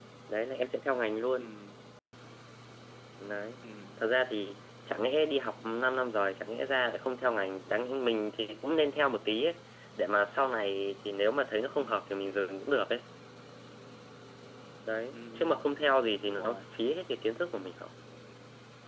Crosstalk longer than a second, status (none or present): none